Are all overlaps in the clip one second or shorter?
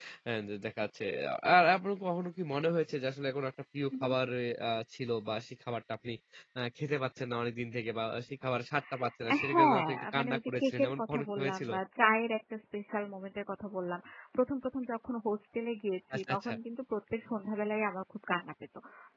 No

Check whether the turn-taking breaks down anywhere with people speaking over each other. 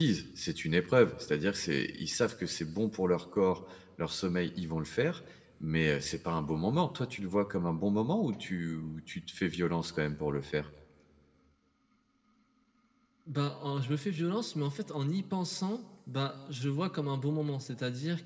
No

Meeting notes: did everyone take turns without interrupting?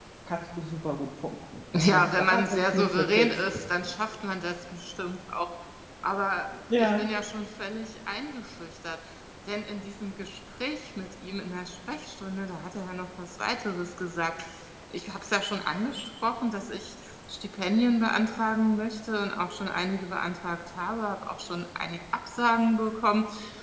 No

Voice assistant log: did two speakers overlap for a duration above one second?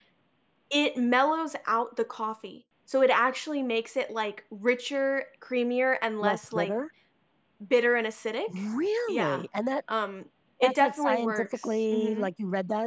Yes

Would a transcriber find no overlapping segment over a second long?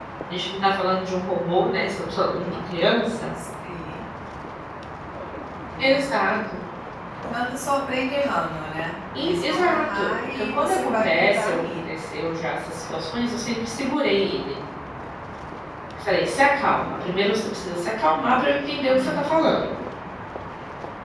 No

